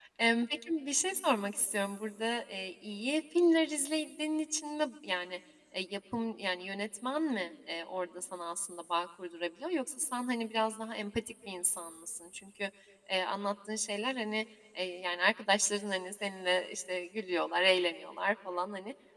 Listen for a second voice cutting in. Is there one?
No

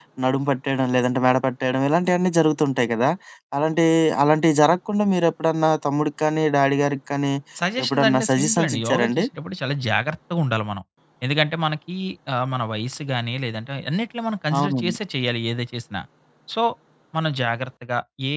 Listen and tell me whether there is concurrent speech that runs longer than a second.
Yes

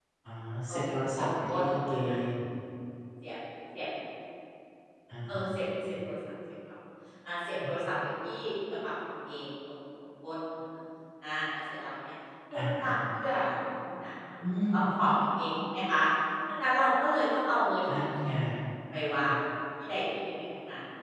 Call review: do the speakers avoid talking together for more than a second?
No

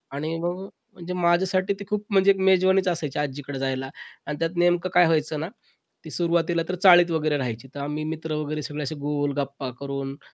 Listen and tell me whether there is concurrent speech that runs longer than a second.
No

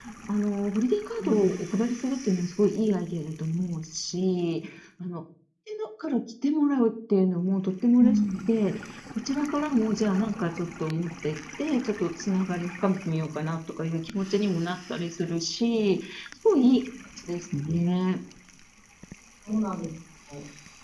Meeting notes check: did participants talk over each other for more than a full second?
No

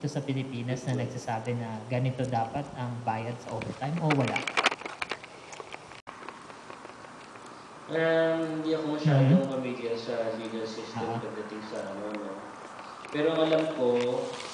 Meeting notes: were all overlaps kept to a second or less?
Yes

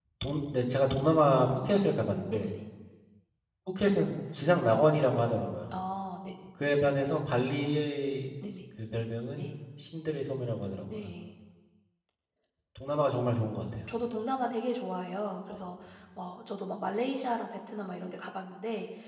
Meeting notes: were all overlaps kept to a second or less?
Yes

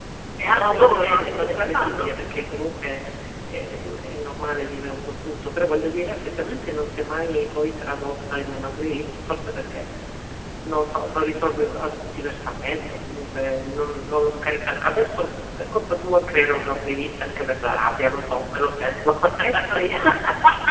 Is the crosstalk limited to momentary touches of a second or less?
No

